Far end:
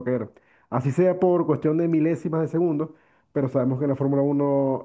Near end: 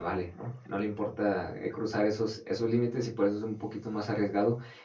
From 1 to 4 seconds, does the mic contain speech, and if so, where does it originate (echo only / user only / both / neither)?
user only